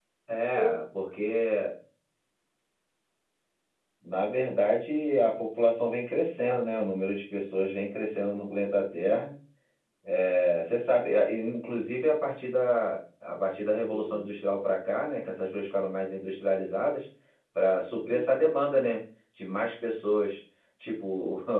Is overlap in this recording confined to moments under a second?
Yes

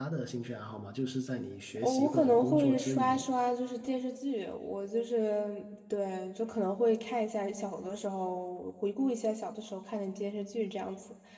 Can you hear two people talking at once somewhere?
Yes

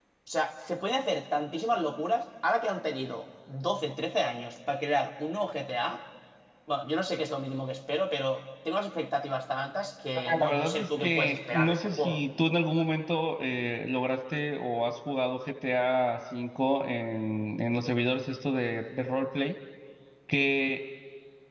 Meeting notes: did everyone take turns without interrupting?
No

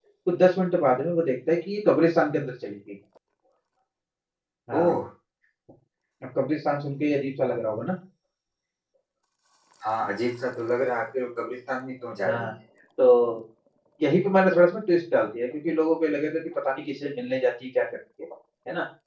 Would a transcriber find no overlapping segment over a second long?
Yes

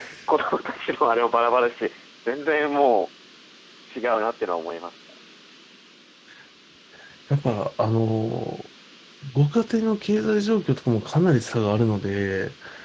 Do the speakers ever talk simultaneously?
No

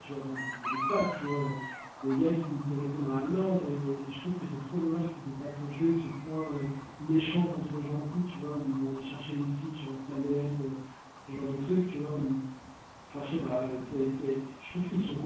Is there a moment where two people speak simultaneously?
No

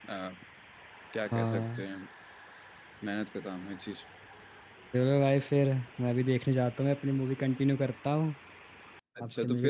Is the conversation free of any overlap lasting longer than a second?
Yes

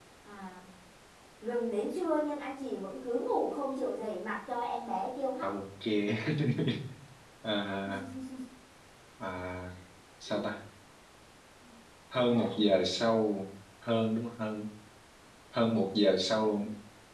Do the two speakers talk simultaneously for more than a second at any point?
No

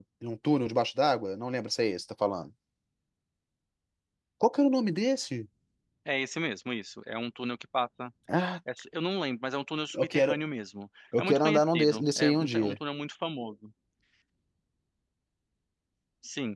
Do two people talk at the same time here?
Yes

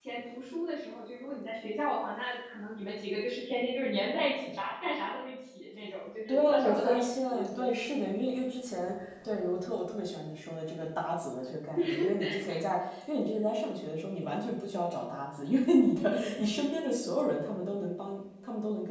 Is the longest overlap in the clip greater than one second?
Yes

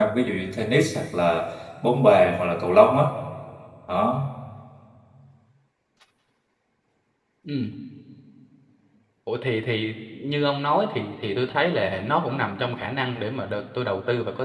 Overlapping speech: No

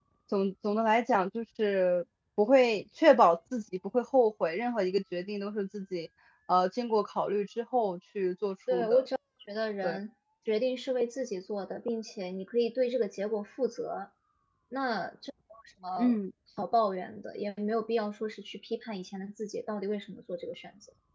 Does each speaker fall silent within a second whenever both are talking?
Yes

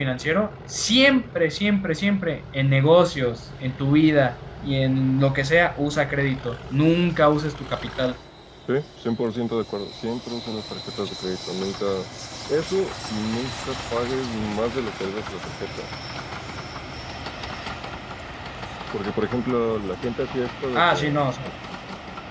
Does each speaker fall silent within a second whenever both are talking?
Yes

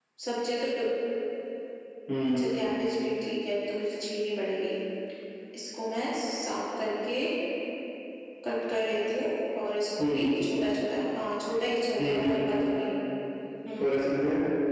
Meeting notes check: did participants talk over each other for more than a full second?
No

